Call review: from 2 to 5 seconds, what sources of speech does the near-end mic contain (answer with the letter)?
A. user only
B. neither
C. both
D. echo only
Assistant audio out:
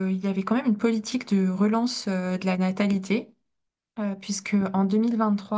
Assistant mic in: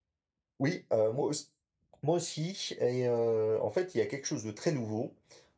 A